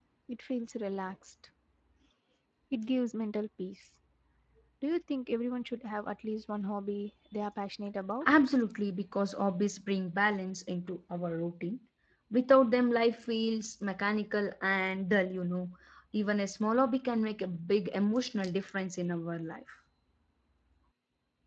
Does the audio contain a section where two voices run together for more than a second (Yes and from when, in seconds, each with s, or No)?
No